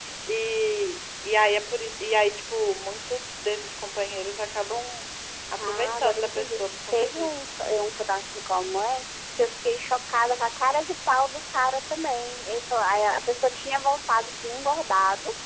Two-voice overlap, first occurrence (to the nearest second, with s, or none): 6 s